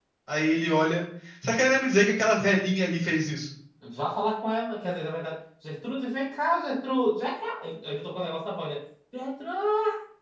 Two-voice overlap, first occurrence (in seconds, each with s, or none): none